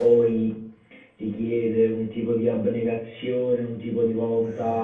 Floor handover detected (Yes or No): No